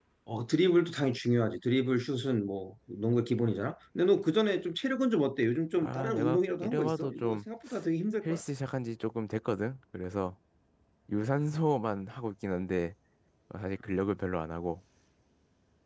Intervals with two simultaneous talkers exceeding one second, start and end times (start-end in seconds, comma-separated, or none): 5.8-7.4